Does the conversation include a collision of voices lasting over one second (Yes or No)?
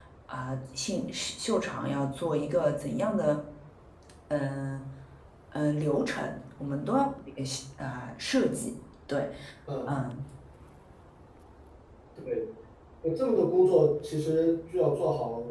No